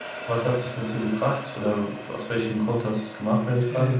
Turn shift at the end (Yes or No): Yes